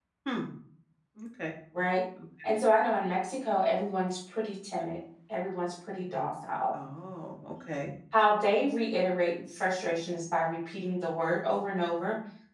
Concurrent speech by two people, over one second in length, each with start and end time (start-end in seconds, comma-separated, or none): none